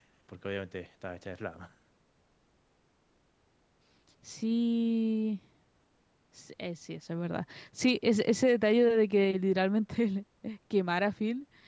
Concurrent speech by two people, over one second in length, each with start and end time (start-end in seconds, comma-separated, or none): none